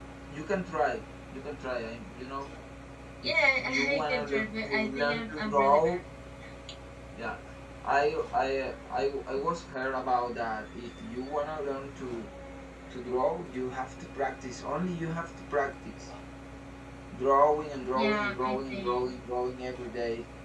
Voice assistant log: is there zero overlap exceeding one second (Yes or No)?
No